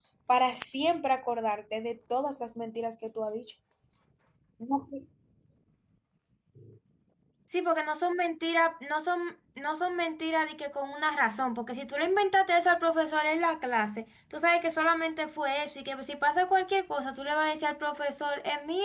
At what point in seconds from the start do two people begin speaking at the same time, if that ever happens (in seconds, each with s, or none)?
none